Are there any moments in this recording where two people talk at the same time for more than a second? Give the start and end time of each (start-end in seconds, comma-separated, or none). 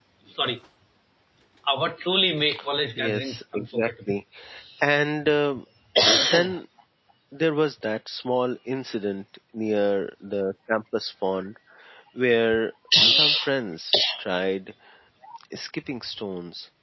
3.0-4.2